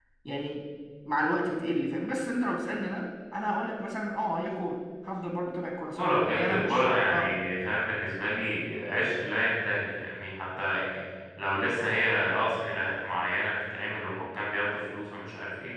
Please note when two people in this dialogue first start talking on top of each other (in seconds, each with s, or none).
6.0 s